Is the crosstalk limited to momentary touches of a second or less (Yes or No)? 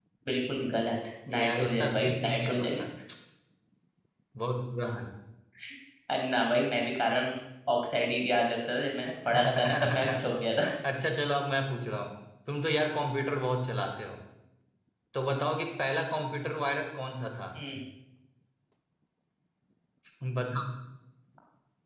No